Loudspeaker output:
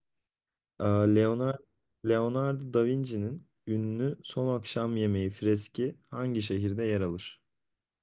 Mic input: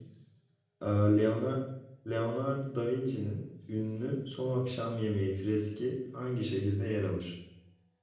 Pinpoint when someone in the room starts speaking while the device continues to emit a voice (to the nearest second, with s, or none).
none